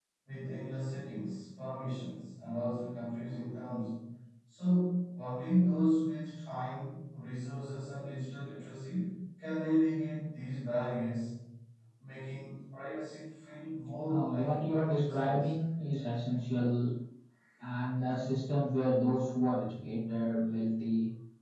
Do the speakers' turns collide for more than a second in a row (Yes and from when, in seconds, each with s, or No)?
Yes, from 14.1 s